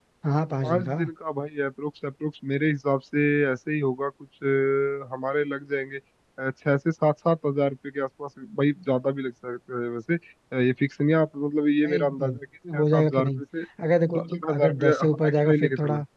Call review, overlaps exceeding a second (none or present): present